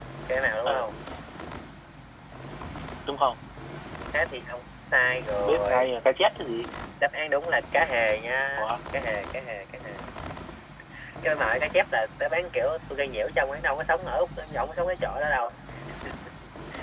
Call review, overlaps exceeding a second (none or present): none